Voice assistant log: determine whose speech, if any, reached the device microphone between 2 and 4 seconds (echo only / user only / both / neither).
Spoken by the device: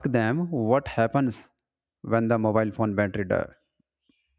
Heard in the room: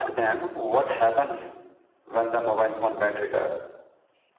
echo only